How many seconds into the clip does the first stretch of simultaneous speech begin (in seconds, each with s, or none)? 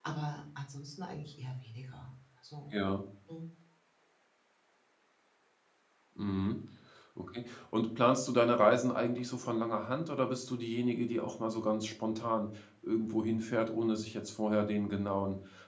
none